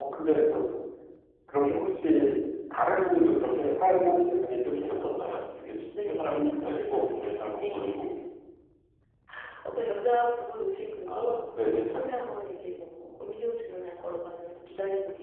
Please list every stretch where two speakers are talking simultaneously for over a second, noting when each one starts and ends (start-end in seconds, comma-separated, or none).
6.1-7.8